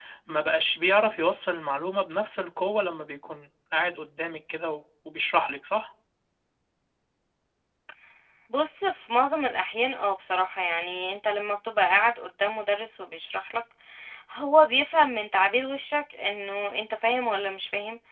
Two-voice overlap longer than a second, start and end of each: none

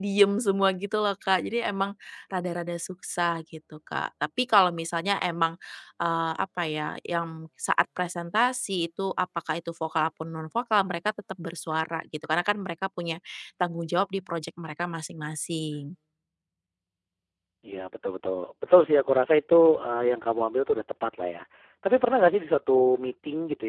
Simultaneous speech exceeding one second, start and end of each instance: none

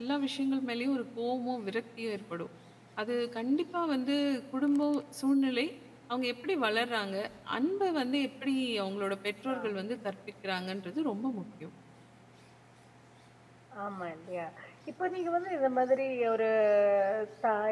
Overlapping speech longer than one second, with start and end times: none

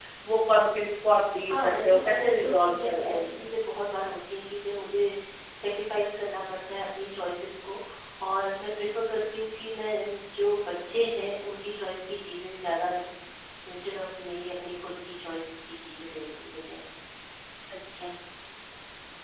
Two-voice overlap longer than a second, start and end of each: 1.5-3.4

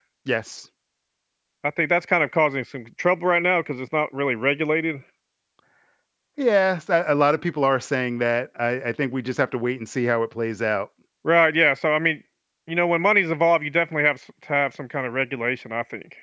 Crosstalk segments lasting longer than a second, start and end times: none

